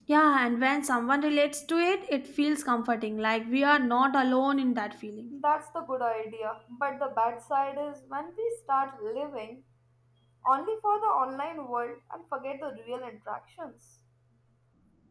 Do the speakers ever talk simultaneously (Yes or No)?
No